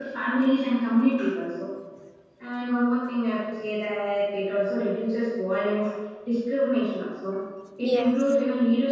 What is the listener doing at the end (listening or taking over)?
listening